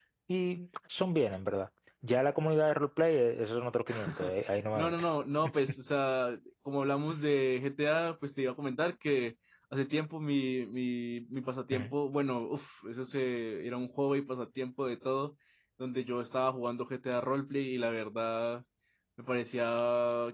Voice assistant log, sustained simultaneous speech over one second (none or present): none